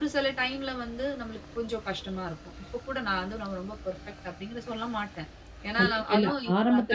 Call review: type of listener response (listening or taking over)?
taking over